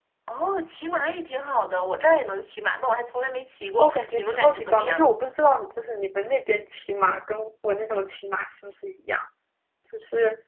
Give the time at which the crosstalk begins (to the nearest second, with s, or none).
4 s